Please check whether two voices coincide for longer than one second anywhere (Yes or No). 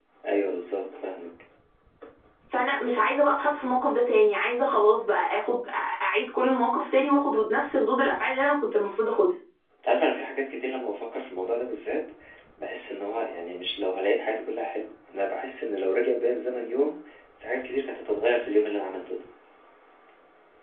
No